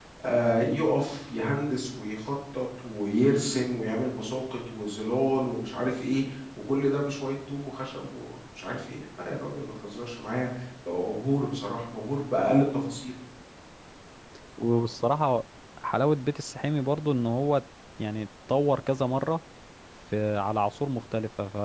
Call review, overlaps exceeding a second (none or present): none